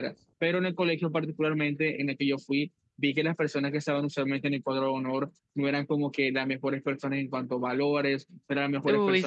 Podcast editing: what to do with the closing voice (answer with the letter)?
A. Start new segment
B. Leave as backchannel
B